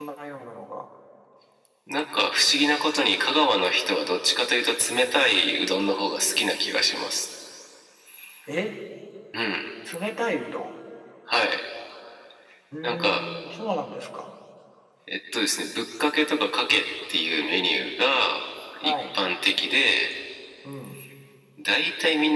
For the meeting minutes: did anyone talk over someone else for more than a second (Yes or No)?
No